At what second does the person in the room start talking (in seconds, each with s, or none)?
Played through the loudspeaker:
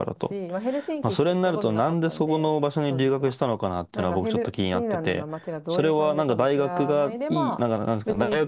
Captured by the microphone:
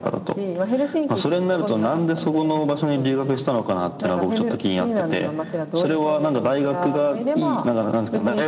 none